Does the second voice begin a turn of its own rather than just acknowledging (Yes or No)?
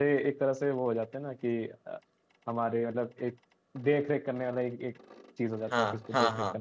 Yes